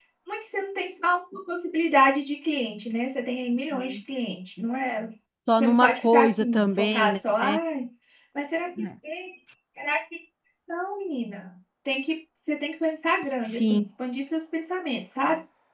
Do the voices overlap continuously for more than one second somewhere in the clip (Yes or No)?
Yes